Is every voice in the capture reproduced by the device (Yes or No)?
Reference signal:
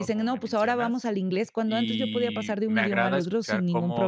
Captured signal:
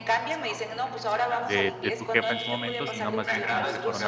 No